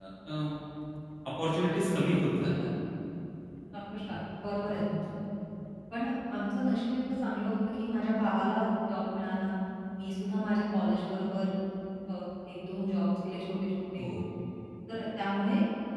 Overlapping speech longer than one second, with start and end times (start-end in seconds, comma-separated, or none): none